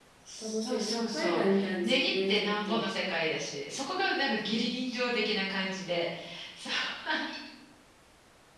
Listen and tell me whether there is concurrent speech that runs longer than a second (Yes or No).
Yes